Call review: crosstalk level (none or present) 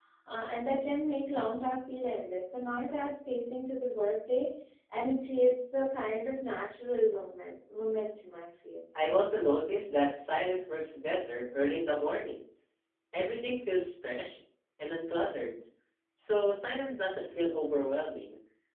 none